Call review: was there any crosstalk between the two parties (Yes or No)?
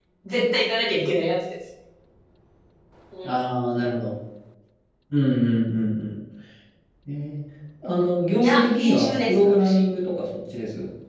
Yes